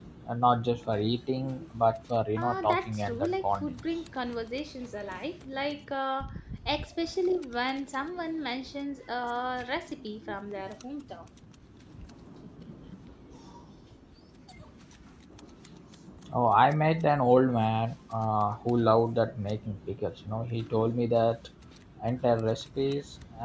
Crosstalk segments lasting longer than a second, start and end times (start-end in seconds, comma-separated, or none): 2.4-3.8